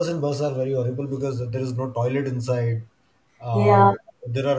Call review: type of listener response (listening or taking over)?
listening